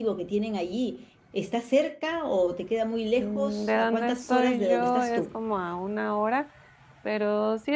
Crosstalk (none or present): present